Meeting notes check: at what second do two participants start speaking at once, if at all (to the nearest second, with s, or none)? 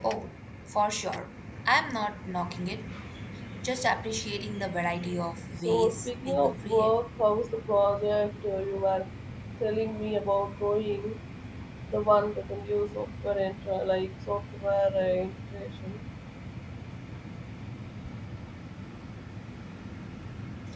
6 s